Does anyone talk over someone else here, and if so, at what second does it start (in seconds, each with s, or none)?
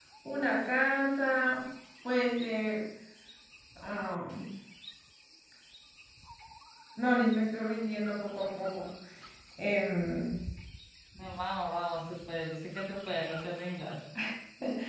none